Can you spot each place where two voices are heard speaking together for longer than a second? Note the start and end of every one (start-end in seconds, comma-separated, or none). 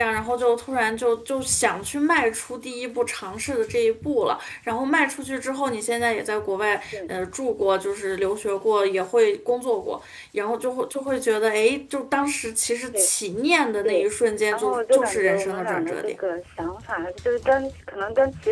14.5-16.2